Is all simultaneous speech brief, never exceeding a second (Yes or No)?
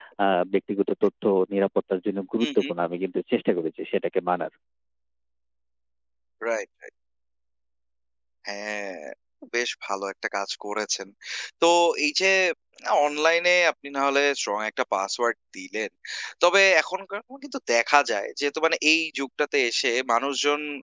Yes